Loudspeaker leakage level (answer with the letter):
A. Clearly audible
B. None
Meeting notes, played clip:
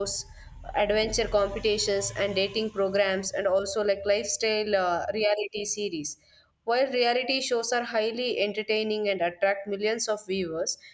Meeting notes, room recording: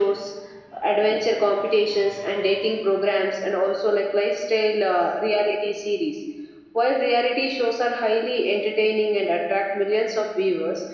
A